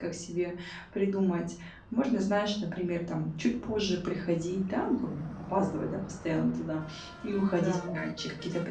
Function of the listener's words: listening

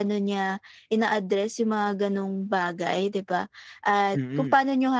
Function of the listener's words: listening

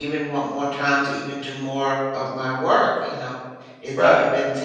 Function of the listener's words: listening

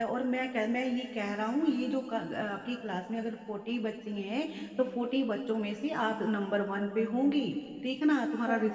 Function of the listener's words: listening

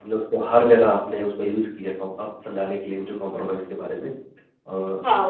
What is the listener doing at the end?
taking over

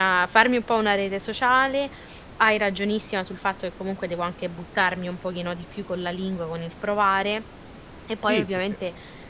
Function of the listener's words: listening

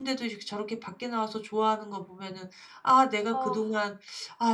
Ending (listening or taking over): listening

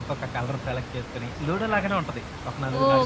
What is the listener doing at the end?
taking over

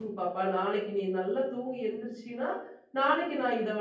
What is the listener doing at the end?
listening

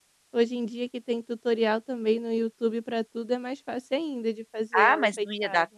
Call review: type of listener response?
taking over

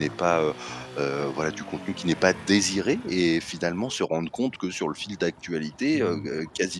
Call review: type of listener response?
listening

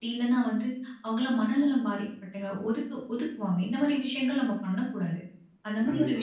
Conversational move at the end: listening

